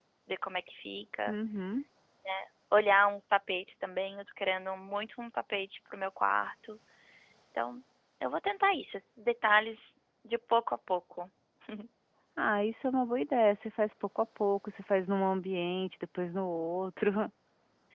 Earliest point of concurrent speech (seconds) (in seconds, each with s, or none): none